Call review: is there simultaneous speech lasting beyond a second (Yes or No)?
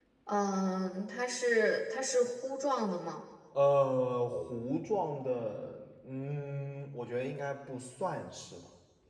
No